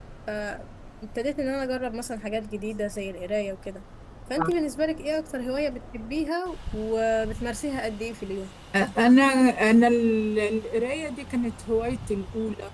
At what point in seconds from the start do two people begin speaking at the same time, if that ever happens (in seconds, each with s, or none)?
none